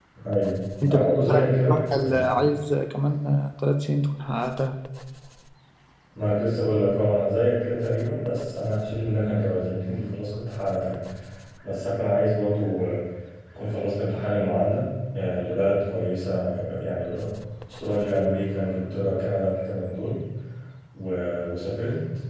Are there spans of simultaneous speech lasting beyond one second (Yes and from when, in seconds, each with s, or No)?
Yes, from 0.8 s